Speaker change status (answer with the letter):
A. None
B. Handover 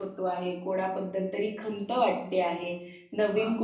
A